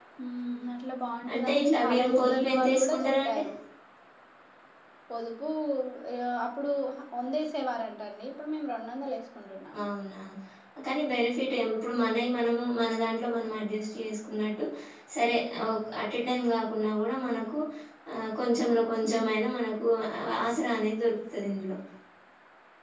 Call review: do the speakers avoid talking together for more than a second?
No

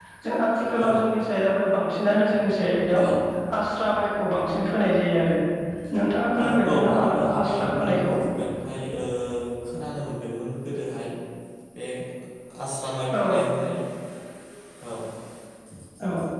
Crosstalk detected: Yes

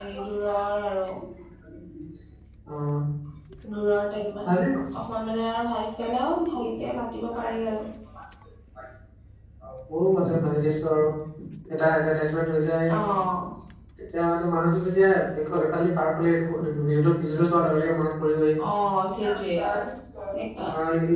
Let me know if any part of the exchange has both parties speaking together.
No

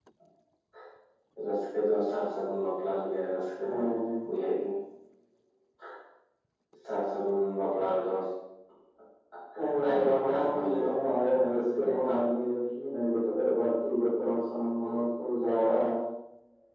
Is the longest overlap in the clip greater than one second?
Yes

